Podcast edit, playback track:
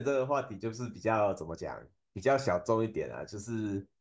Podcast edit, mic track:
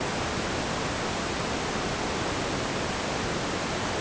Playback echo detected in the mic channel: No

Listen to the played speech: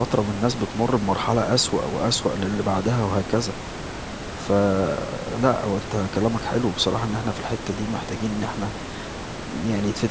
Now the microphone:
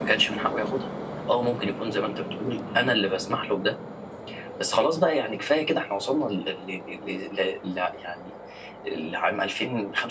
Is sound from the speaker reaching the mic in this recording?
No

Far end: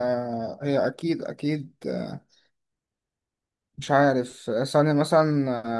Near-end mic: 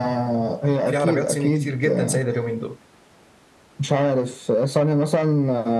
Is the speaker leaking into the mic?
Yes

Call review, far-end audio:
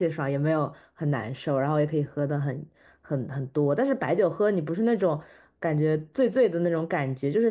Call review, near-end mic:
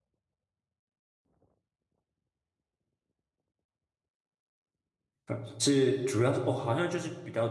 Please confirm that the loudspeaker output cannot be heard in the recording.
Yes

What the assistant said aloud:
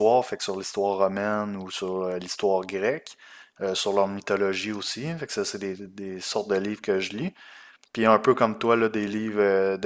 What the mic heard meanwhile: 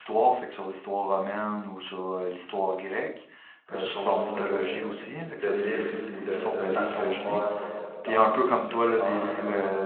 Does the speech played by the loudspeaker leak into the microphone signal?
Yes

